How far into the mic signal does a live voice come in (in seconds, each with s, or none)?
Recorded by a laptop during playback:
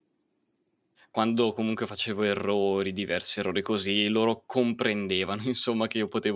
1.1 s